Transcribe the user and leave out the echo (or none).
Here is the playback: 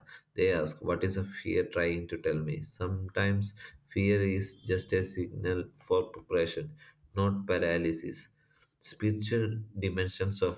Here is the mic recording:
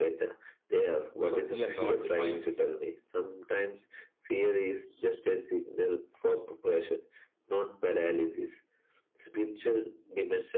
So, we are not defined